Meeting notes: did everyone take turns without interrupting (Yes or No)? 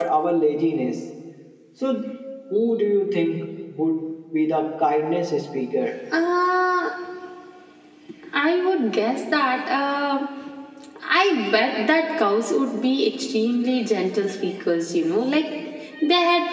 Yes